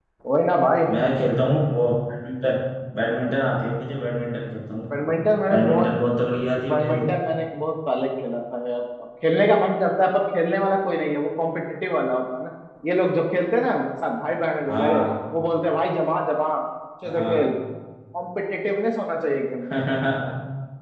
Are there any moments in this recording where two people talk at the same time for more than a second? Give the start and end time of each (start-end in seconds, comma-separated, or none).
none